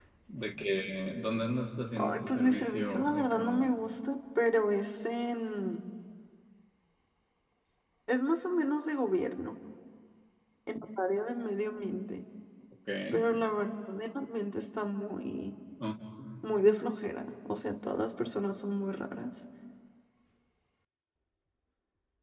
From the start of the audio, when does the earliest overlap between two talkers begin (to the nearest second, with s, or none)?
2 s